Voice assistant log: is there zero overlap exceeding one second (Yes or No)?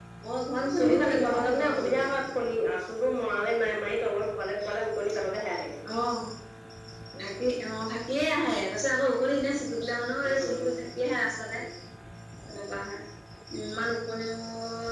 No